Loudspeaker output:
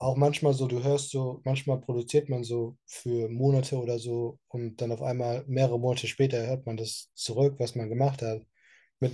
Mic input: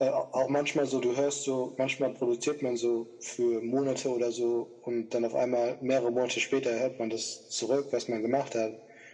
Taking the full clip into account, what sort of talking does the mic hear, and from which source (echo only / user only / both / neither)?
echo only